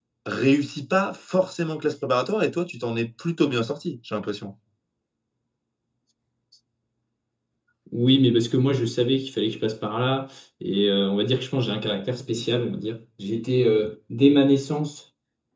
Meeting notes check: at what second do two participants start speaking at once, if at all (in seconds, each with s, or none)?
none